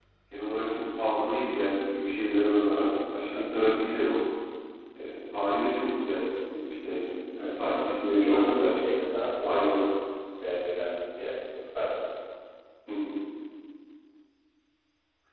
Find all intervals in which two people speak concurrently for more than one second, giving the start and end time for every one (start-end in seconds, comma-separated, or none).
7.4-8.8